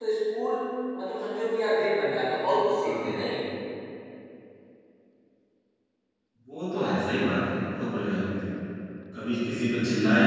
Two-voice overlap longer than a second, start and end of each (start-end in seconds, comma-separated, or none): none